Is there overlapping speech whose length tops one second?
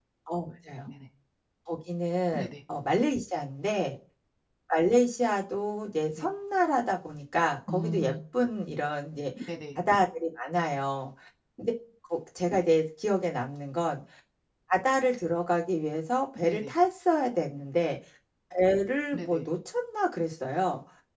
No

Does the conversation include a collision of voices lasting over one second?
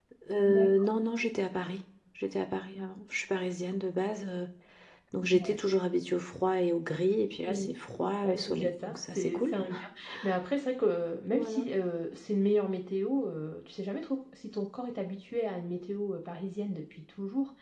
Yes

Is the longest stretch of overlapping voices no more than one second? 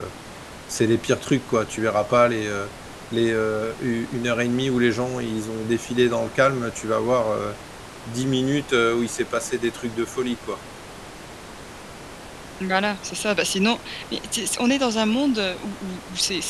Yes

